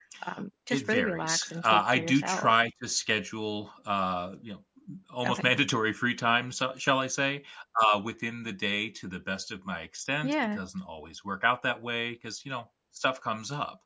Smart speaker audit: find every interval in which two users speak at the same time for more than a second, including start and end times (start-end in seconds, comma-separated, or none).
0.7-2.5